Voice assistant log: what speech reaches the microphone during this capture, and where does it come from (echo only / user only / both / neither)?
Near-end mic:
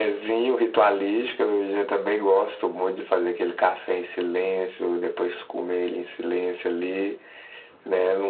echo only